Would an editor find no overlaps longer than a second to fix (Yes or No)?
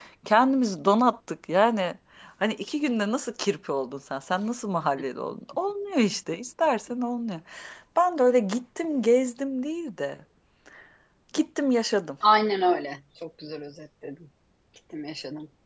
Yes